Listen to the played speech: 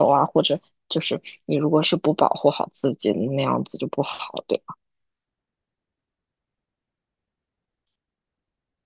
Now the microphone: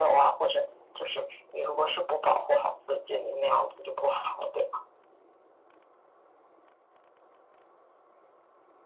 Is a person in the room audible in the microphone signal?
No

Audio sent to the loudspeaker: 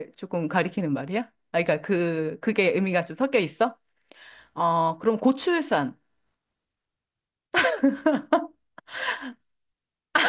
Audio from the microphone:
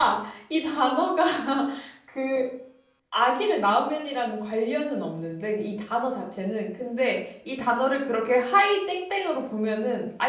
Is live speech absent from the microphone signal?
No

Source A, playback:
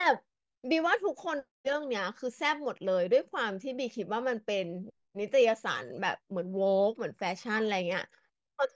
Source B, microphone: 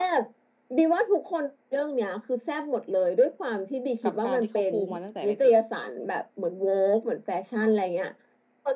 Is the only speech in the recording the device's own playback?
No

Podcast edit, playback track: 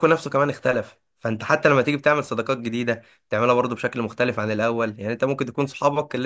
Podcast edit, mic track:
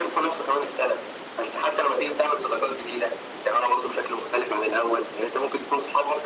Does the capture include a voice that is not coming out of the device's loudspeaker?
No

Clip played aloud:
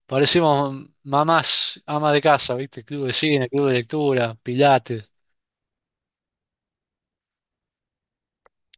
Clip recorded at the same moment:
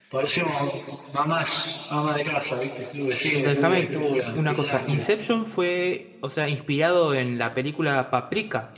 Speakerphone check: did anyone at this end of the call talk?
Yes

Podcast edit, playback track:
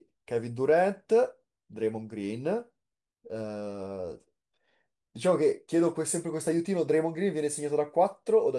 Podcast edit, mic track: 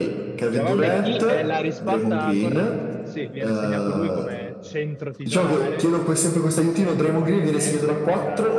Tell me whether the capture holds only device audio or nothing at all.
No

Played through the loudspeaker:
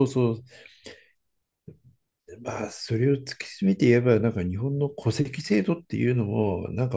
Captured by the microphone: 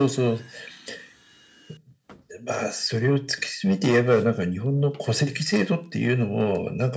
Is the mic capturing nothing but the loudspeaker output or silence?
Yes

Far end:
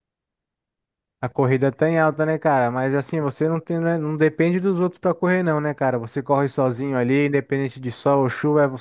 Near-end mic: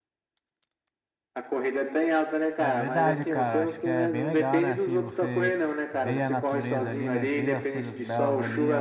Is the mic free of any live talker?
No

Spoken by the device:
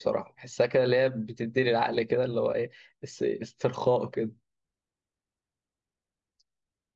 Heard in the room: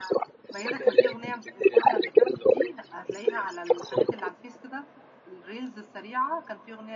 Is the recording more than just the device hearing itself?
Yes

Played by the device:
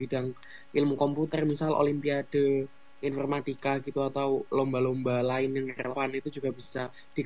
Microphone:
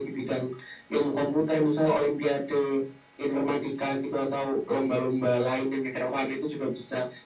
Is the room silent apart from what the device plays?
Yes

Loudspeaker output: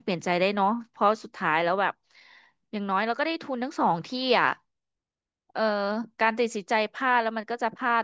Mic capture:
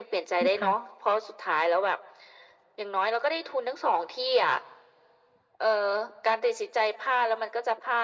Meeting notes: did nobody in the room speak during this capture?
No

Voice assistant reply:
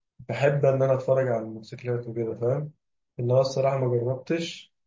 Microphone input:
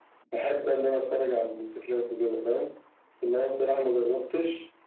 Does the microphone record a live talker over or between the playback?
No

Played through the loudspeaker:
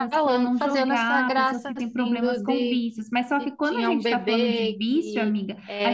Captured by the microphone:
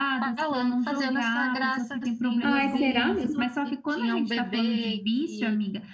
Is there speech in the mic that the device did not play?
Yes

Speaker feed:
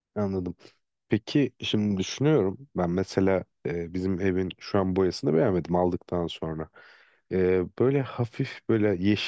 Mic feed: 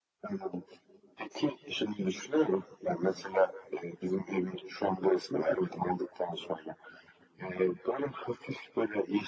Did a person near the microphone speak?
No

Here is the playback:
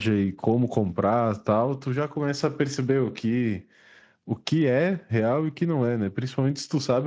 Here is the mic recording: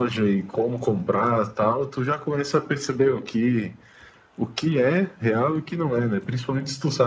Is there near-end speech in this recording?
No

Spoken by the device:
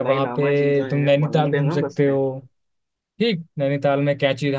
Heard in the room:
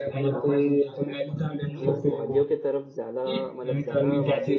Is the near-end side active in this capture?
Yes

